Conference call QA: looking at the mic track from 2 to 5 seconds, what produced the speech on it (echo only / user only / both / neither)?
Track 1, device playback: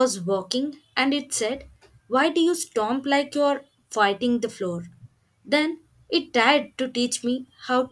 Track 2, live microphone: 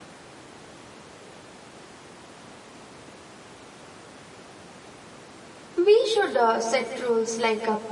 neither